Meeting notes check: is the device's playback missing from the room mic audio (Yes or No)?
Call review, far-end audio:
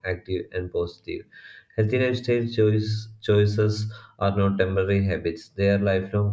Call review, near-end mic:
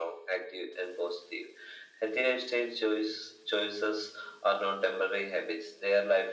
No